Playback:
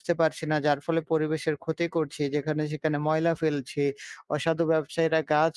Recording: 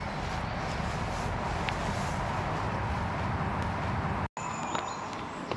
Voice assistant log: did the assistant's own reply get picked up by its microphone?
No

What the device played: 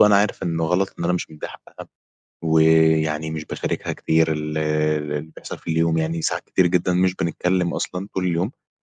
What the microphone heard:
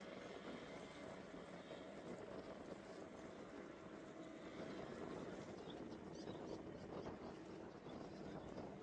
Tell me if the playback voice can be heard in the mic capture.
No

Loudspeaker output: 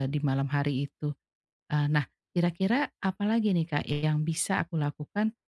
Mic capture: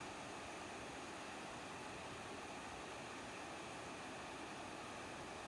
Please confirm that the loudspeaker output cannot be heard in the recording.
Yes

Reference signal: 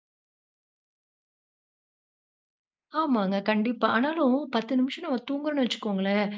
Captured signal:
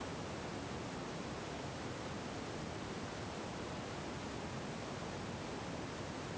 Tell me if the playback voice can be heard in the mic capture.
No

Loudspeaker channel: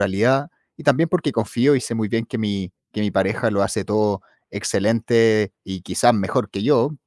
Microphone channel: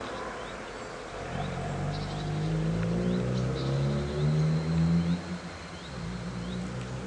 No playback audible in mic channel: Yes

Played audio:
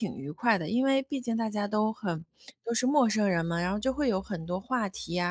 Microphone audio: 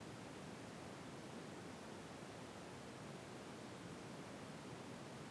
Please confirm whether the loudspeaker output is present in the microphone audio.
No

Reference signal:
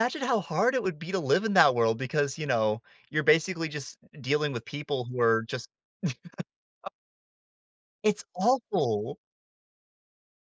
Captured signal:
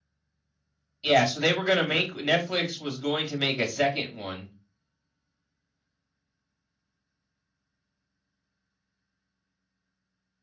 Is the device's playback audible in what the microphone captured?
No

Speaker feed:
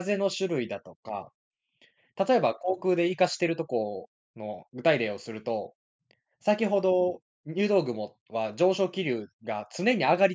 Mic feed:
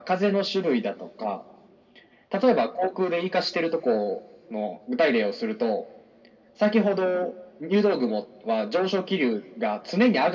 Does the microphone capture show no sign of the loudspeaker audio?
No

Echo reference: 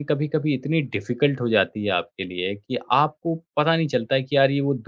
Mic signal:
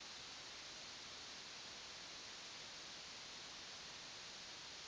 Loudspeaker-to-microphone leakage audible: No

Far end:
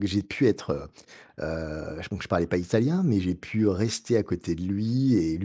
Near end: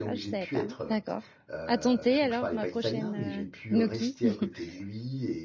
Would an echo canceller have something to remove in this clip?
Yes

